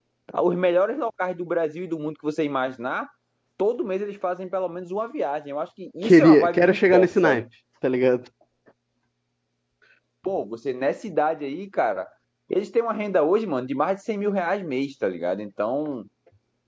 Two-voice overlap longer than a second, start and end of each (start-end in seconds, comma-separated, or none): 6.0-7.4